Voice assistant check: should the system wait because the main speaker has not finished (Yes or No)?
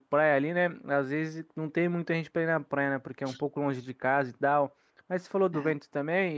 Yes